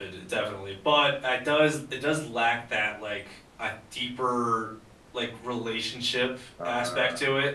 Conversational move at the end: listening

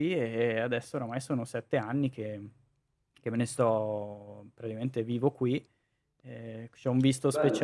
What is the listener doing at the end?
taking over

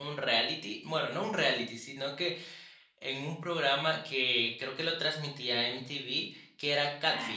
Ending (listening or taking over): taking over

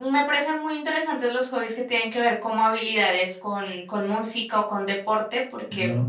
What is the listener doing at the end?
listening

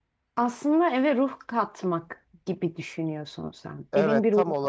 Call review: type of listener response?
taking over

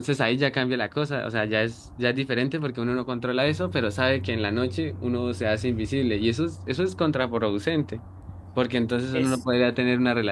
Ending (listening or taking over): listening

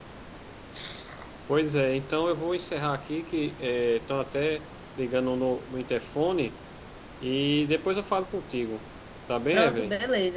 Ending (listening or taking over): taking over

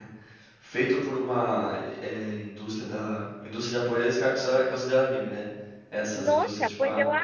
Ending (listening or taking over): taking over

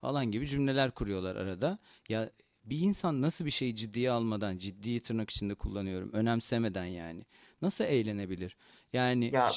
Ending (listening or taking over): taking over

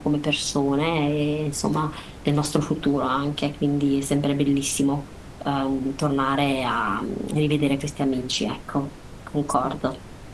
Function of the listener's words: taking over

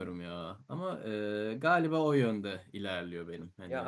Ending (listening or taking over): taking over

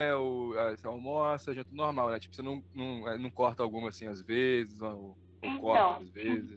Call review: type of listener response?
taking over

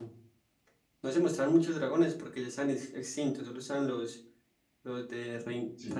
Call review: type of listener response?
listening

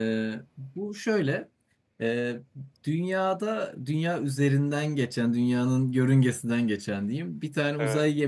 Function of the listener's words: listening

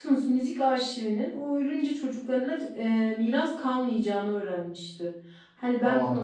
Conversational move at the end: listening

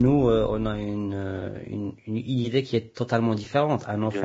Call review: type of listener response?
listening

